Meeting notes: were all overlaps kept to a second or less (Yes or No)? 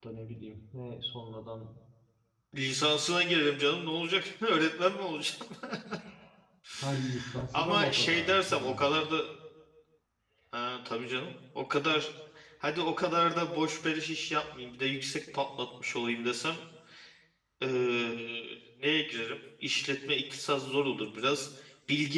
No